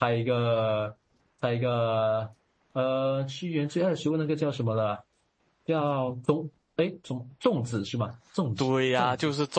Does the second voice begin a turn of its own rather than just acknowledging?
Yes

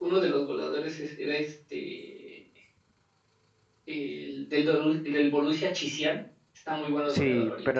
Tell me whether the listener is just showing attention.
No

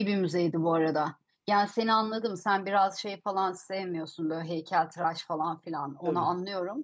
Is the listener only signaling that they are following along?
Yes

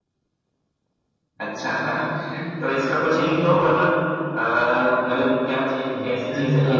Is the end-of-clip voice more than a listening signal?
Yes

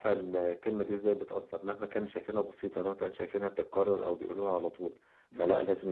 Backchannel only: Yes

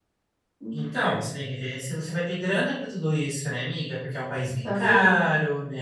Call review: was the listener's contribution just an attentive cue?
Yes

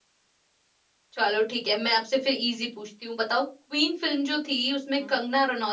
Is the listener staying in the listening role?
Yes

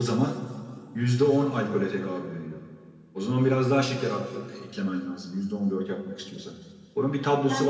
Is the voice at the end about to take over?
Yes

